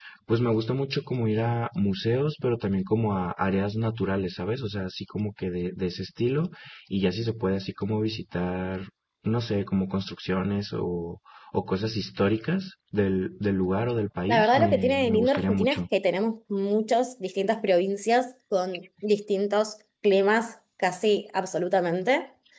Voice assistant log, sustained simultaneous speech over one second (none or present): present